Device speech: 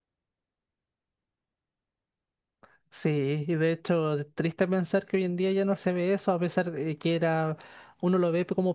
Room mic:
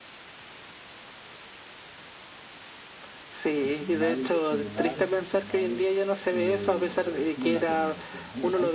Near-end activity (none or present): present